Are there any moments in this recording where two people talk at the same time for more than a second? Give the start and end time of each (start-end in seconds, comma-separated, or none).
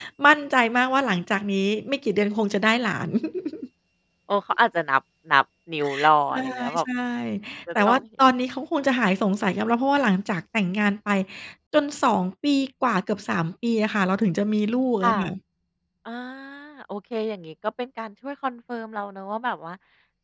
none